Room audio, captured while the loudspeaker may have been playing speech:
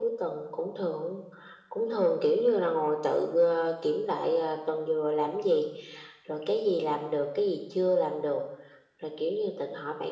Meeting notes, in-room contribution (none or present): none